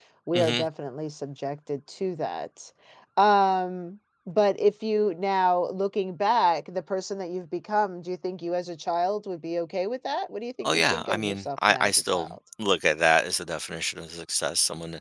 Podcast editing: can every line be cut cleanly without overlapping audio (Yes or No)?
No